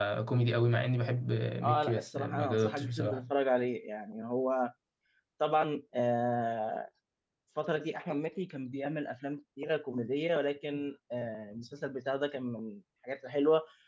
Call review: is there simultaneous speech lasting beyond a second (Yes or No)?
Yes